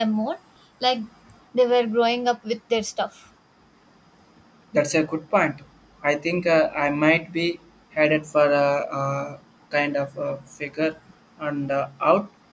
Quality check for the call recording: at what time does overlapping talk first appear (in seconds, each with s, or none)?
none